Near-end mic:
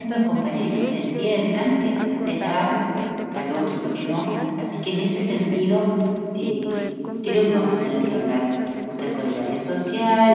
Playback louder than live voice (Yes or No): No